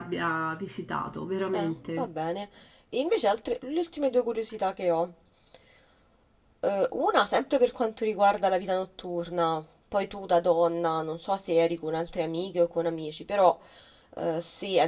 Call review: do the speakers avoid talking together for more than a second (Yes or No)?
Yes